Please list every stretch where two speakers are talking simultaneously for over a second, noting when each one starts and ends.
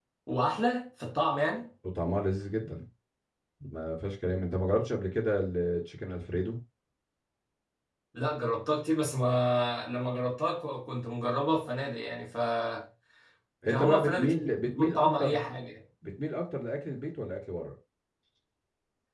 13.7-15.4

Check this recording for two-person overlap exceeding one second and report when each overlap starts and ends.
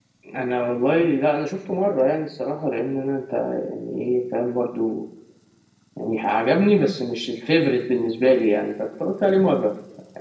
none

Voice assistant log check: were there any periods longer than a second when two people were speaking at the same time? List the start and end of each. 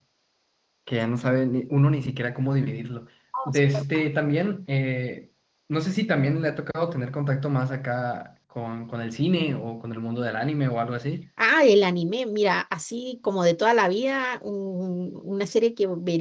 none

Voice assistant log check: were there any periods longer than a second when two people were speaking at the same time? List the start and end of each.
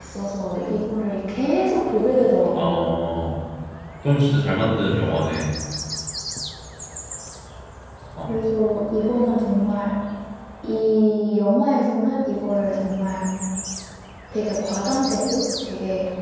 none

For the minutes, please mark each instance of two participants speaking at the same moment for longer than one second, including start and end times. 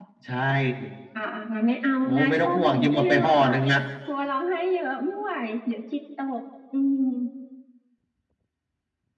2.0-3.5

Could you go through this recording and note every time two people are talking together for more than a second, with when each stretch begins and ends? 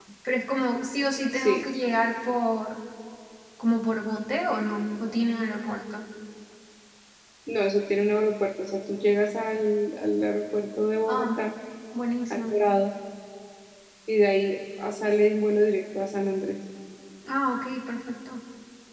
none

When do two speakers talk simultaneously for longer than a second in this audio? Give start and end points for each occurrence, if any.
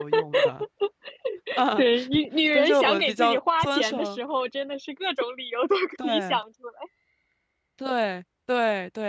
2.5-4.2

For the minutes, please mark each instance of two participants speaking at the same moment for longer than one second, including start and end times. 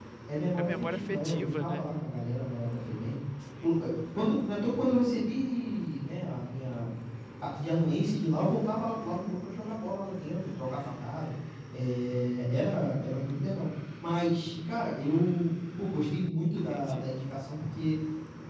0.6-1.9

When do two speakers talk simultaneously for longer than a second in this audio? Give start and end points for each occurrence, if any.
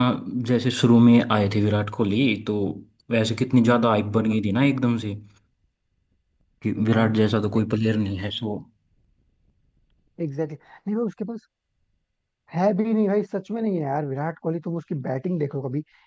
none

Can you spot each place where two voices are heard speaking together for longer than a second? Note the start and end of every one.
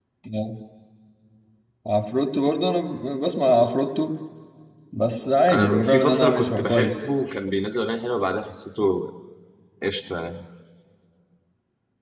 5.5-7.1

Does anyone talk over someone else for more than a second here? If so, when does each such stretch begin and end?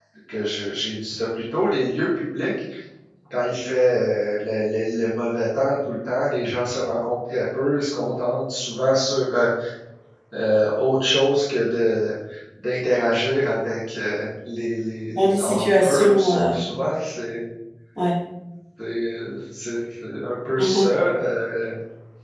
15.2-16.6

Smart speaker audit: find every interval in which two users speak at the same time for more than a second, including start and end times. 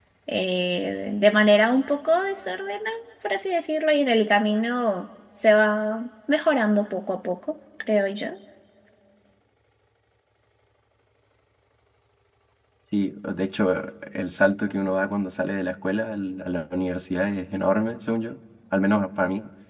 none

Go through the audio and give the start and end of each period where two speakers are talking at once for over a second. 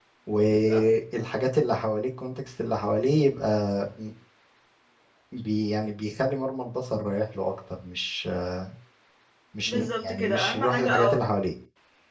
9.7-11.2

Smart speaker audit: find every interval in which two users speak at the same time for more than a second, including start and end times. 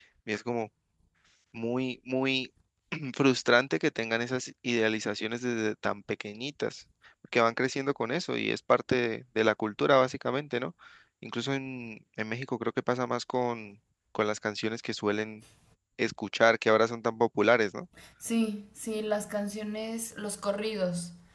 none

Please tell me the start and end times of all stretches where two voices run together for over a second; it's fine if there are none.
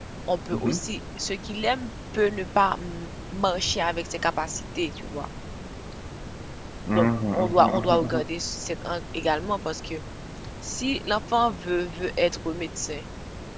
6.9-8.2

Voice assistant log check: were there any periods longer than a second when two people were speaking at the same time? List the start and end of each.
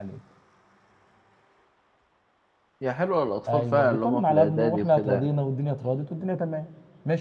3.5-5.3

